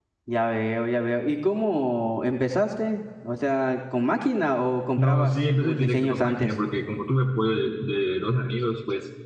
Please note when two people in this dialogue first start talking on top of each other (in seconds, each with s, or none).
5.0 s